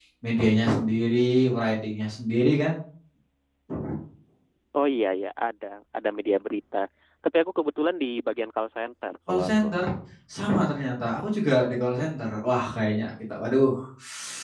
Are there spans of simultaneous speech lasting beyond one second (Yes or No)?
No